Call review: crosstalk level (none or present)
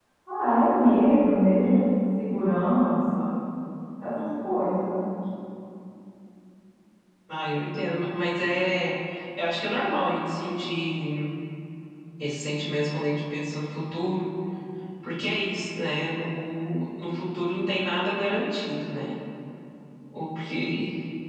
none